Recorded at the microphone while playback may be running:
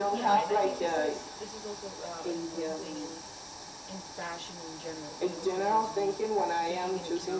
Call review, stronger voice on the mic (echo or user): echo